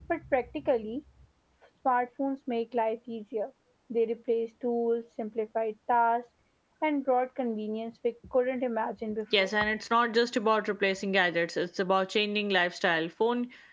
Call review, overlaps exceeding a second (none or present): none